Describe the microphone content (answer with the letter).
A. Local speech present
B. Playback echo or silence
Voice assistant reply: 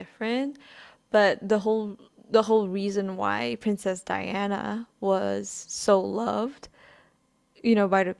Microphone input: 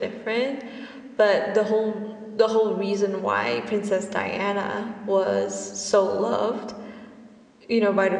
B